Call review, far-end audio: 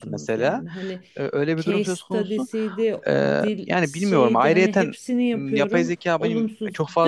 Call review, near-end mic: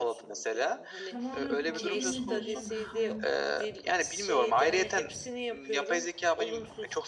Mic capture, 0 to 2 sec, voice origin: both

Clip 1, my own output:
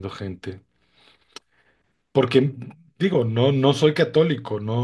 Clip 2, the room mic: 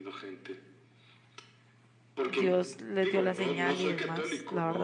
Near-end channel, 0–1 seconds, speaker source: echo only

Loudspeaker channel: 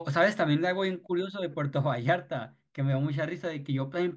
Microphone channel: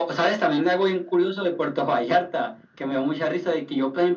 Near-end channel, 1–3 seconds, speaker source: echo only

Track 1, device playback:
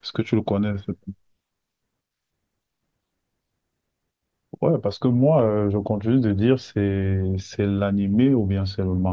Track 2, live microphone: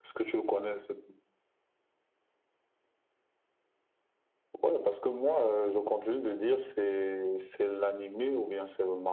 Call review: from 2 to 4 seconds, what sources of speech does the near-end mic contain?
neither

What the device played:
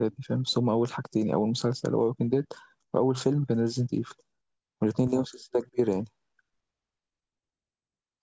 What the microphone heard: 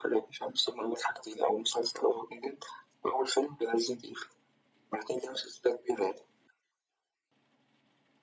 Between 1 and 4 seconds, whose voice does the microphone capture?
echo only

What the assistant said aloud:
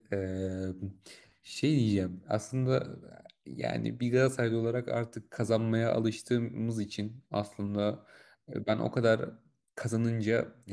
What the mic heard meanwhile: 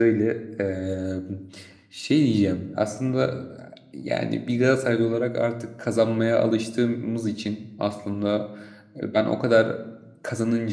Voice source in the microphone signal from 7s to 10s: echo only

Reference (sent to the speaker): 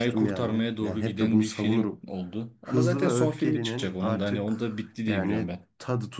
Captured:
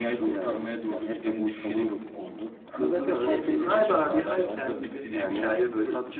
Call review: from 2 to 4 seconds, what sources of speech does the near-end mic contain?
both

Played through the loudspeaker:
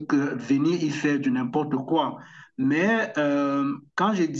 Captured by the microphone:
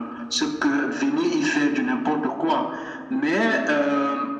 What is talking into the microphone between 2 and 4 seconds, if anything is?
echo only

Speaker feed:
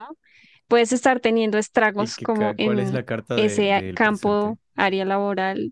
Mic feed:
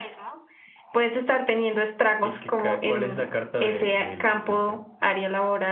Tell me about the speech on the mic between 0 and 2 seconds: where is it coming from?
echo only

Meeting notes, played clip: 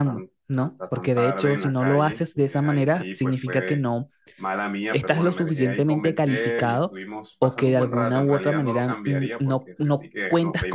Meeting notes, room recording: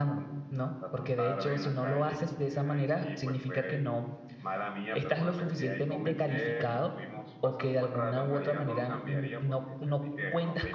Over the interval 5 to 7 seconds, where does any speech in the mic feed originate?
echo only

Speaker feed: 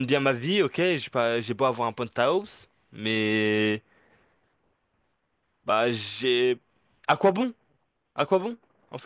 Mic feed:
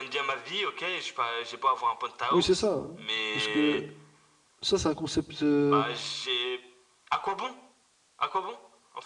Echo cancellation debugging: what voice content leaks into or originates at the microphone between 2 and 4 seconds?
both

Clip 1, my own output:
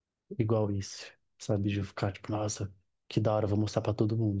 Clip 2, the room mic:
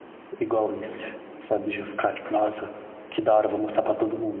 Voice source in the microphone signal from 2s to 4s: echo only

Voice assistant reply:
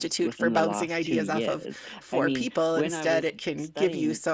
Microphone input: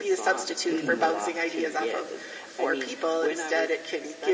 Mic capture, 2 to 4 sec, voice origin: echo only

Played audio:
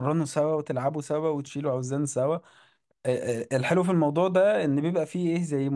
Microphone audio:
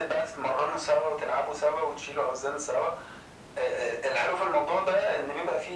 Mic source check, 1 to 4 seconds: echo only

